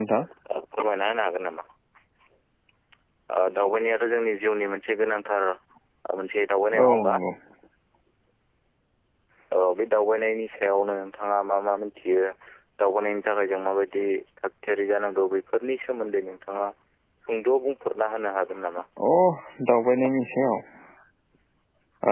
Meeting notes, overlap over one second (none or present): none